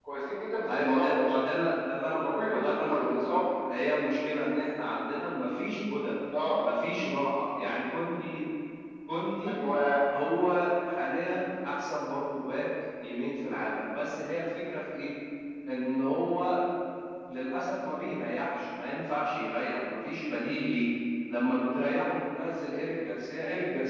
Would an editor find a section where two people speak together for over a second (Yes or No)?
Yes